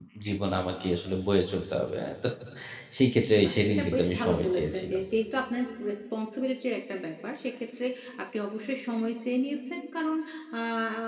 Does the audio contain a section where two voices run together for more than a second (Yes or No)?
Yes